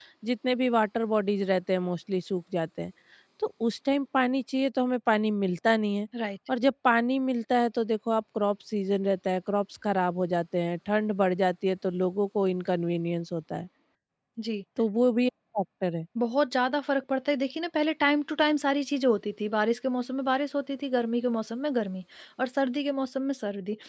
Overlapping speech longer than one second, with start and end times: none

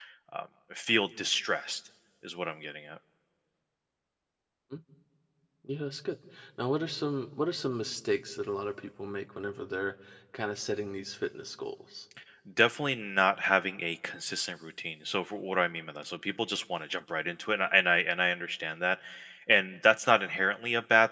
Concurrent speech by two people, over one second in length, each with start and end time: none

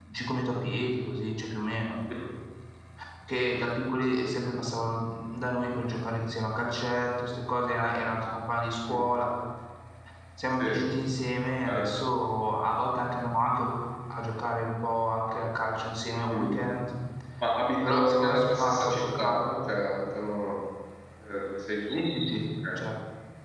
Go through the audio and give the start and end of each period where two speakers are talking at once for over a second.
17.9-19.4

